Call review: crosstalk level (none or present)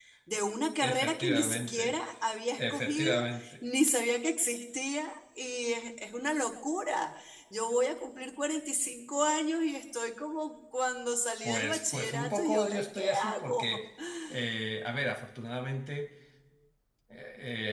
present